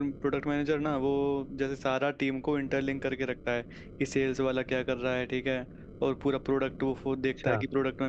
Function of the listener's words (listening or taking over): listening